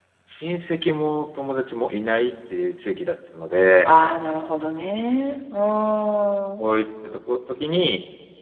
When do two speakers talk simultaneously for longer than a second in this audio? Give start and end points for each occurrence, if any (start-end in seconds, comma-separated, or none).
none